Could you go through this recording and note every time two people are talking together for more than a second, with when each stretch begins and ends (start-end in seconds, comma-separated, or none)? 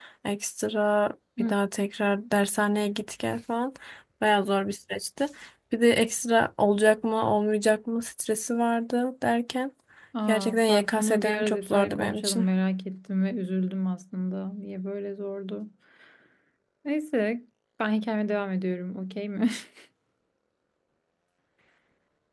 10.3-12.5